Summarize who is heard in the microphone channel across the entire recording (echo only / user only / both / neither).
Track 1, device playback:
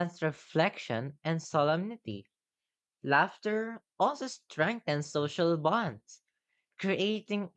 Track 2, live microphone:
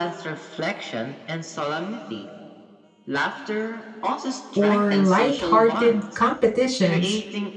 both